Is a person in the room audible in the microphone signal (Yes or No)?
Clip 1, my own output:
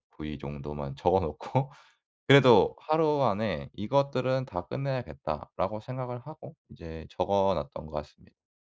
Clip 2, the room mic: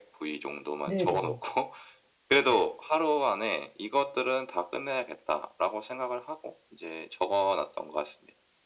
Yes